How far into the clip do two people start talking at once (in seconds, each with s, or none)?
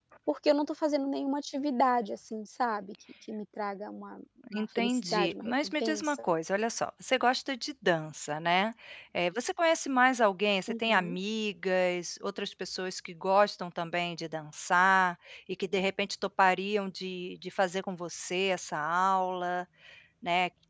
4.5 s